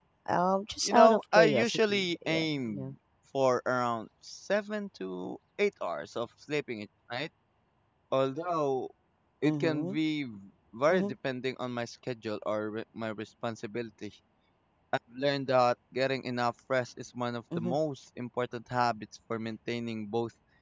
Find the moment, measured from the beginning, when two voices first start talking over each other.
0.8 s

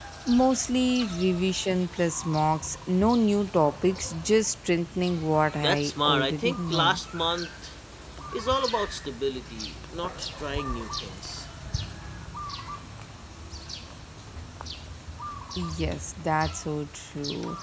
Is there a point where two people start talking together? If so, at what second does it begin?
5.6 s

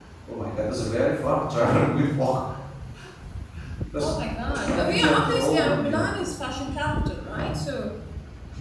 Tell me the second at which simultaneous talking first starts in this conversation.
4.0 s

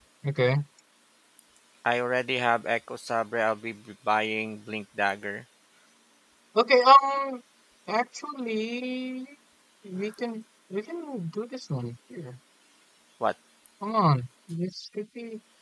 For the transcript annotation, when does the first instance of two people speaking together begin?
none

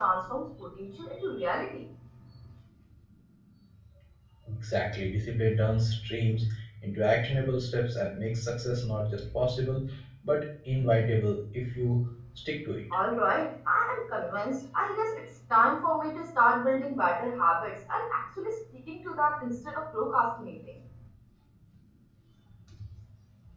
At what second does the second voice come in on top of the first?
none

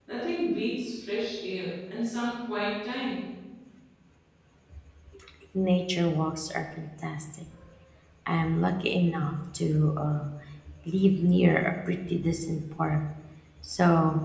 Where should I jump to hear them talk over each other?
none

